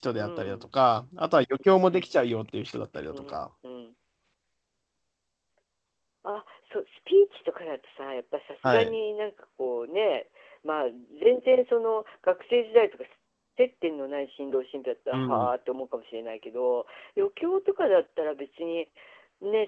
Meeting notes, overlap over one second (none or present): none